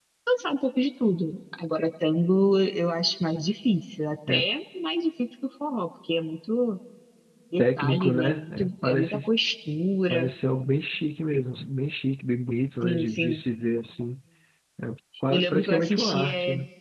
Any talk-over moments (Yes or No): Yes